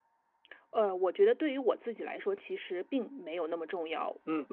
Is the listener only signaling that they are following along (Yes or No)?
No